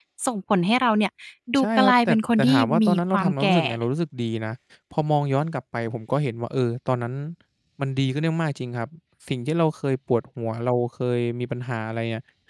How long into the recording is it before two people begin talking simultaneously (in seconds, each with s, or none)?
1.6 s